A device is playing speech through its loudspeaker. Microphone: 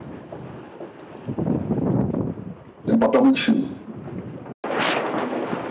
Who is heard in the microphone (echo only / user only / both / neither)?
user only